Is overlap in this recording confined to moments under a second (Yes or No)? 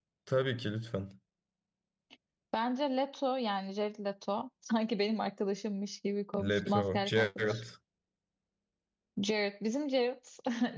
No